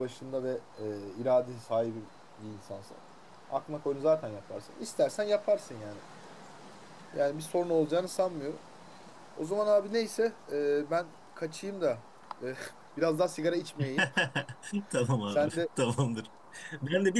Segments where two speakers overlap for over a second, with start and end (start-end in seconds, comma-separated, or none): none